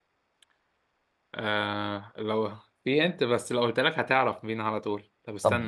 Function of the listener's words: taking over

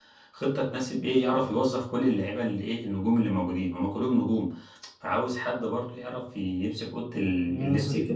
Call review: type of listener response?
taking over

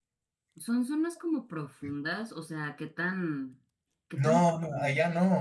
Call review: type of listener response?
taking over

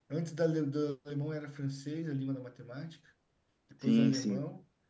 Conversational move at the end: listening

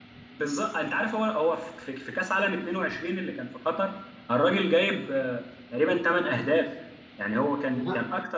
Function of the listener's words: listening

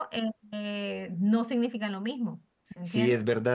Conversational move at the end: taking over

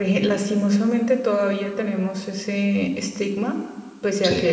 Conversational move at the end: listening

